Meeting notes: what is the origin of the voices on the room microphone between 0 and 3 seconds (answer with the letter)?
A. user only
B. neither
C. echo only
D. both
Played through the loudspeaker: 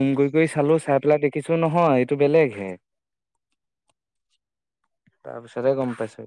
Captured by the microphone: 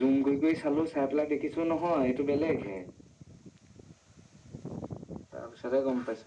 C